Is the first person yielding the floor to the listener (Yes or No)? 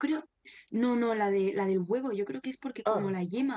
No